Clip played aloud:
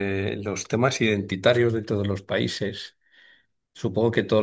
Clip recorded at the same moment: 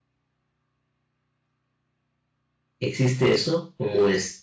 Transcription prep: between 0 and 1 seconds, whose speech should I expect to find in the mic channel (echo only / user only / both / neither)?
neither